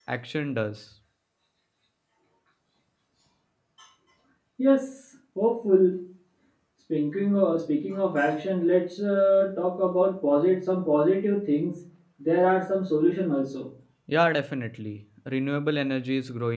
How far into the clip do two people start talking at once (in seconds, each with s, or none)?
none